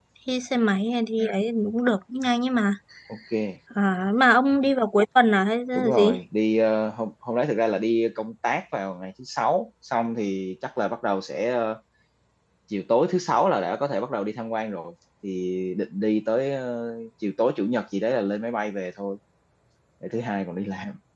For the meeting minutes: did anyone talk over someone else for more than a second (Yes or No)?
No